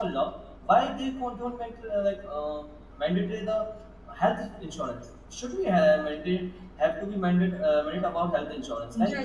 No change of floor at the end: No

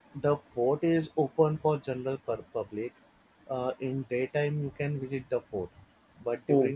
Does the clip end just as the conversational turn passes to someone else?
No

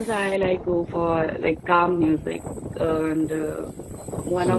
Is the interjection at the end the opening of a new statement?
Yes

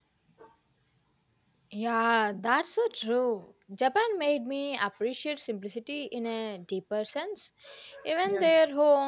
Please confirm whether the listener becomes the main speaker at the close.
No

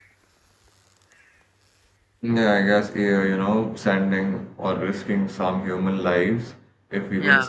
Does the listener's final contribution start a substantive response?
No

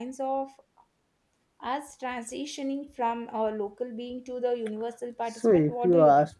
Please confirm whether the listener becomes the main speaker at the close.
Yes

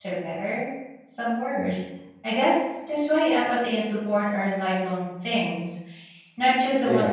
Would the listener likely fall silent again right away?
No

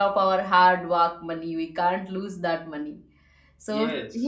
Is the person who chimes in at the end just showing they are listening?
Yes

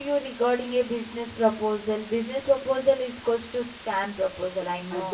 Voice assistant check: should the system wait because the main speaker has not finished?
No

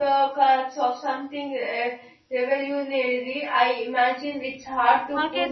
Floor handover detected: No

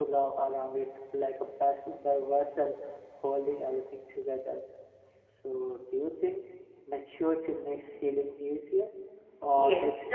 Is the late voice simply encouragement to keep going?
No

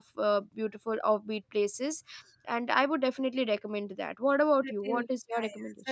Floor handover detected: Yes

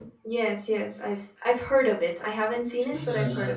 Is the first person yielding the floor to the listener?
Yes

